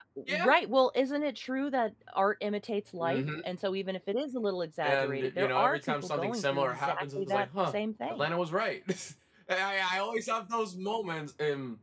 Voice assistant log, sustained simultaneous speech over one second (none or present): present